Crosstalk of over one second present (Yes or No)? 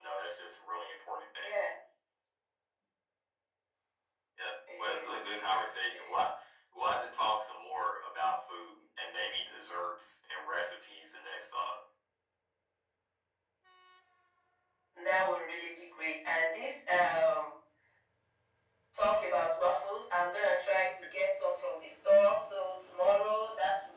Yes